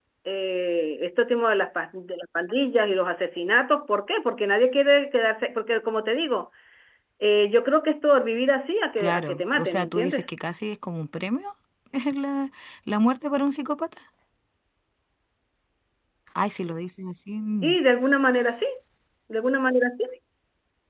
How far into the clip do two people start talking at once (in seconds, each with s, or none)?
9.0 s